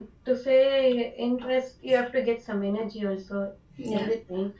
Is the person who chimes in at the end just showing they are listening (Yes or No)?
Yes